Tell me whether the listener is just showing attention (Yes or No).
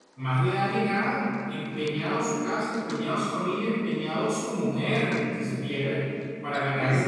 Yes